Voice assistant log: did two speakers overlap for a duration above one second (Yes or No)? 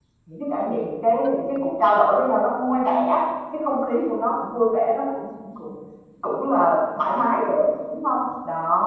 No